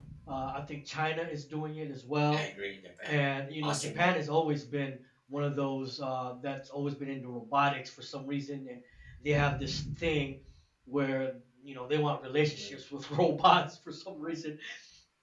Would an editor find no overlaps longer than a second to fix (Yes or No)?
Yes